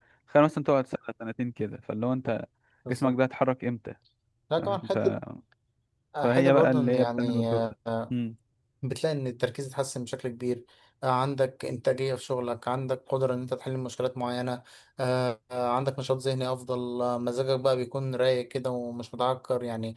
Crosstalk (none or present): present